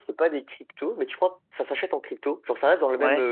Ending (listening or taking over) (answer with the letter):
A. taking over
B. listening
B